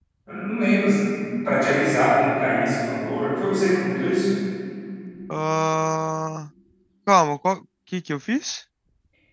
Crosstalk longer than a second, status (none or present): none